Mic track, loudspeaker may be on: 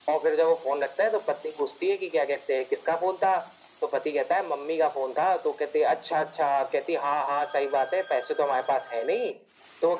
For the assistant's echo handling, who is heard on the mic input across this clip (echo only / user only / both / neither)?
echo only